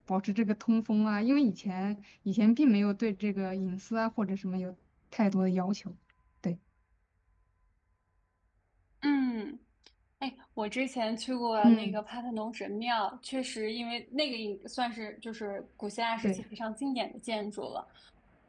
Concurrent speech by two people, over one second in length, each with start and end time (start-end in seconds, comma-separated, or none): none